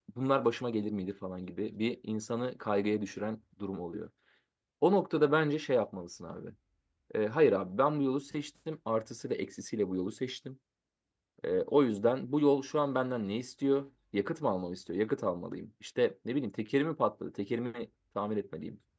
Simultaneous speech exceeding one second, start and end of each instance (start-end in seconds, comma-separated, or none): none